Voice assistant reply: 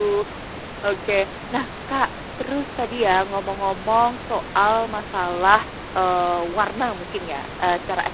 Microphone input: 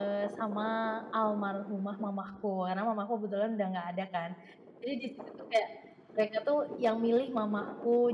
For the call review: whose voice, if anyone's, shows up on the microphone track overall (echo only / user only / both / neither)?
user only